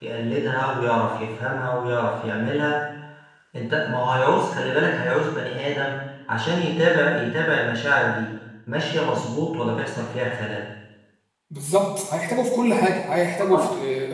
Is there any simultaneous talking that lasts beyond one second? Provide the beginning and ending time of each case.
none

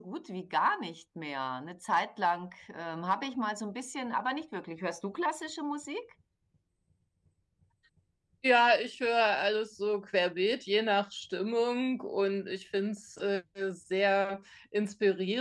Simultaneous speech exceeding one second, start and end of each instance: none

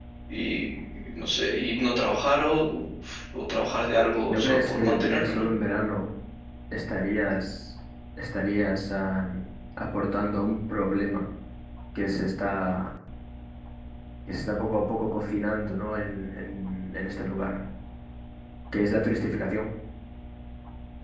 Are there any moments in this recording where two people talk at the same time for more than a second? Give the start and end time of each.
4.2-5.5

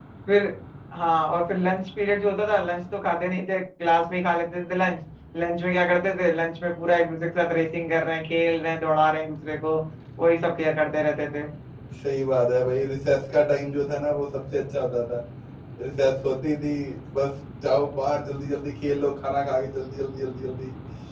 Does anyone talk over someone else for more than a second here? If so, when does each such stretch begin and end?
none

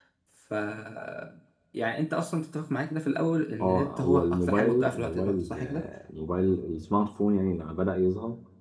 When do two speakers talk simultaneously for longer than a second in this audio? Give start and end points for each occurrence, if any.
3.6-5.9

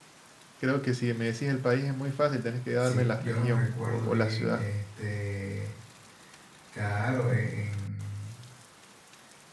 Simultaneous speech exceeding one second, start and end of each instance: 2.8-4.6

